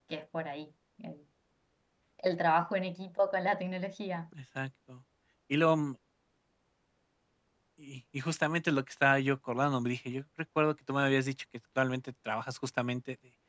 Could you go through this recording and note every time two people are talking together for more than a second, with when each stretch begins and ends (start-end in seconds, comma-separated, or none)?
none